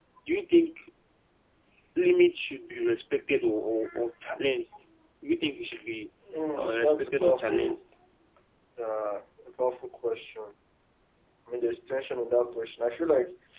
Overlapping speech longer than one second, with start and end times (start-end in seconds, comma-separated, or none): 6.6-7.8